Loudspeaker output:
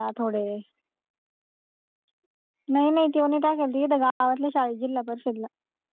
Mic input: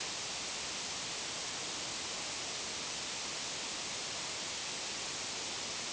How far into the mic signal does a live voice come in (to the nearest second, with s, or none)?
none